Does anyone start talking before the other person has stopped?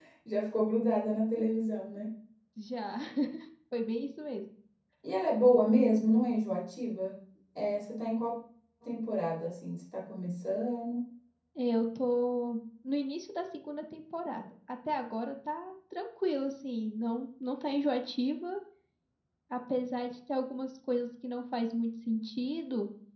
No

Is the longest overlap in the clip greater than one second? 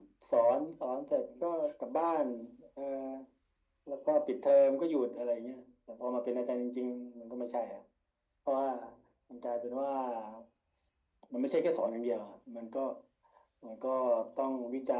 No

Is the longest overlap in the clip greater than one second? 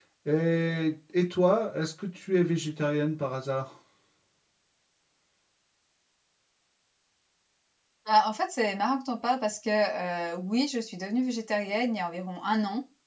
No

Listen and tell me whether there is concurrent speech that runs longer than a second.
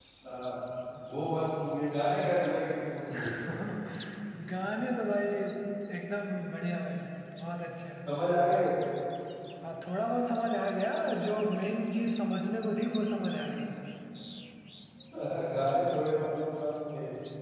No

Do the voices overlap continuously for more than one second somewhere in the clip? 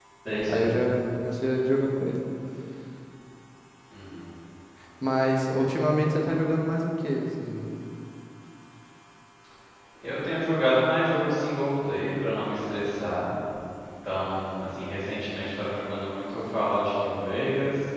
No

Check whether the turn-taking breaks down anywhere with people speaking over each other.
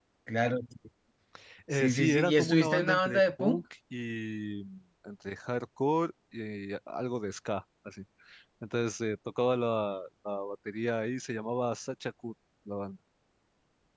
Yes, from 1.7 s

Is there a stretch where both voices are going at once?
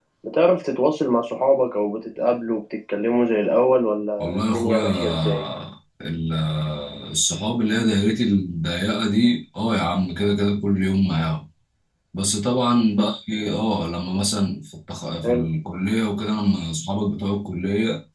Yes, from 4.2 s

